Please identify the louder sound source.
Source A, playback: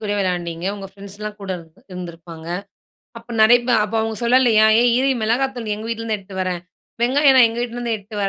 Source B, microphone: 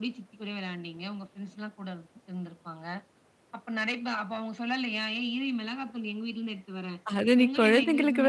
user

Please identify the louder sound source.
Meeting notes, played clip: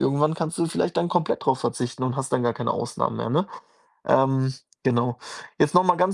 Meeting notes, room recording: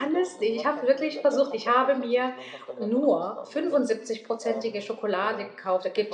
user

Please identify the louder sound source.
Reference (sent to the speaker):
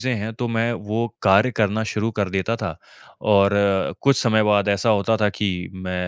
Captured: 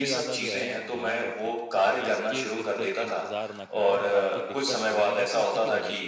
echo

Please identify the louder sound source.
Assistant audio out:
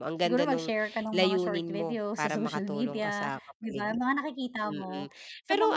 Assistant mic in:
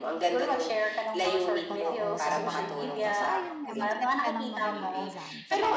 echo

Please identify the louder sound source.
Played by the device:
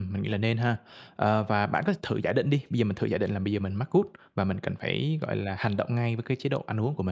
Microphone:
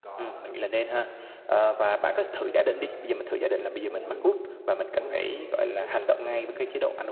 echo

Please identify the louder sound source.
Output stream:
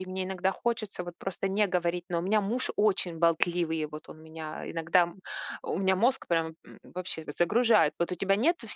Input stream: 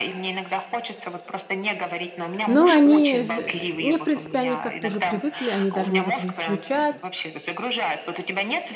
user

